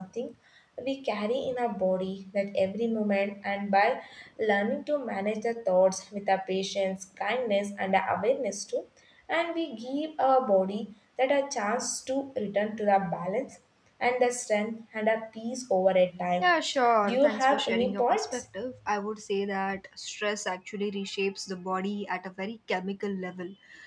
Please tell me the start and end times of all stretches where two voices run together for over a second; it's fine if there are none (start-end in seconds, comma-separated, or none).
17.0-18.4